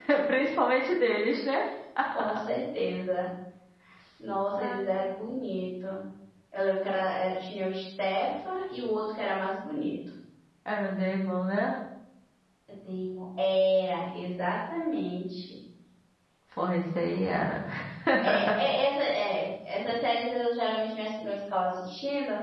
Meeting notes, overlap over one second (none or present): none